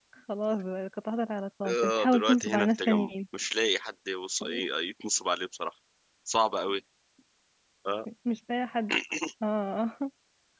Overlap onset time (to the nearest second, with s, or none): 2 s